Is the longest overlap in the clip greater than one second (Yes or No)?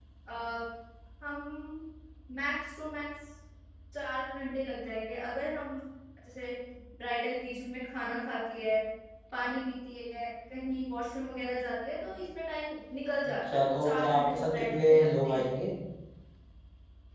Yes